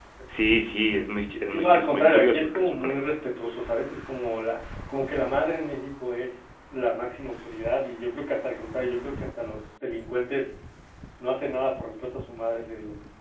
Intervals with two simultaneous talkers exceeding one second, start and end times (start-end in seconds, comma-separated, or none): 1.5-2.9